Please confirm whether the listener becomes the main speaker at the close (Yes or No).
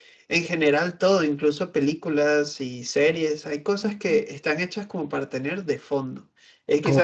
No